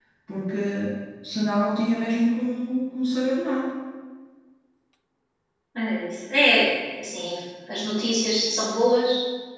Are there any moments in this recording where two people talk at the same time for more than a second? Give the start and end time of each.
none

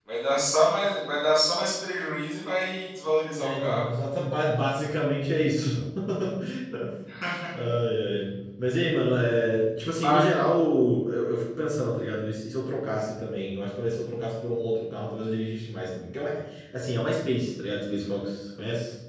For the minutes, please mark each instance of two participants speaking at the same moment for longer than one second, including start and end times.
none

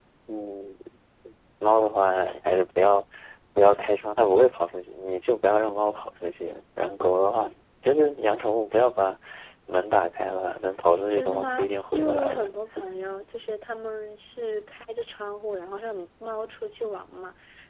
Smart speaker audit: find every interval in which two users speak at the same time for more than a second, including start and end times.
11.1-12.5

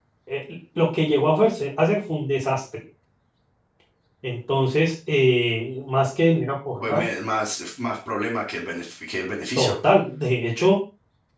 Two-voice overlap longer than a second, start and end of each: none

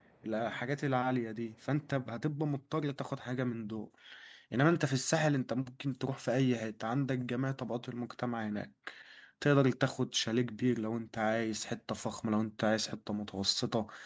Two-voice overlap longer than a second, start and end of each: none

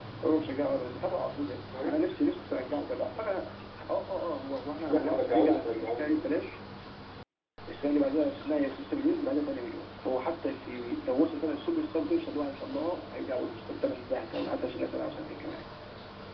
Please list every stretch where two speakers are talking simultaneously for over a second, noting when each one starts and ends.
4.9-6.2

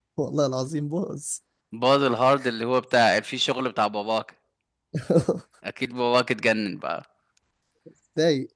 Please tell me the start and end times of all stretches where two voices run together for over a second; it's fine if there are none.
none

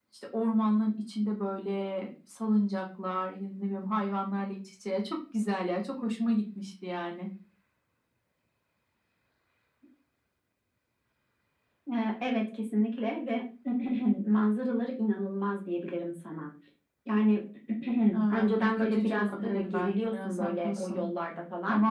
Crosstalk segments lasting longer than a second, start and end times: 18.3-21.0

